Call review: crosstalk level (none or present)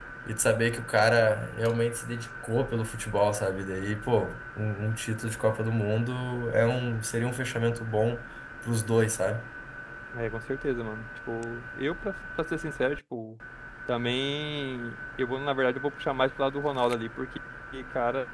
none